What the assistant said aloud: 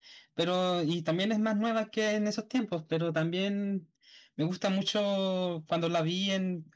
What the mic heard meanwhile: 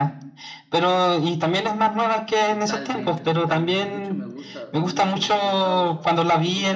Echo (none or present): present